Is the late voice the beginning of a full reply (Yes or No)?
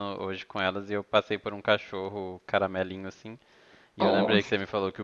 No